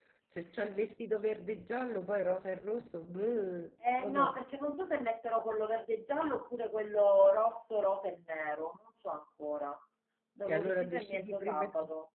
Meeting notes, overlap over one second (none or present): present